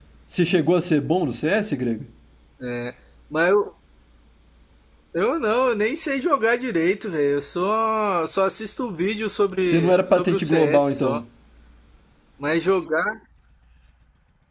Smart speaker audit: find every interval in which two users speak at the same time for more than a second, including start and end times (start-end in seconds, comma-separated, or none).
9.6-11.2